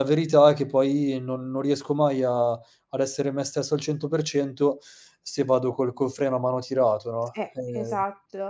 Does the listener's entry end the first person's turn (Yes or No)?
Yes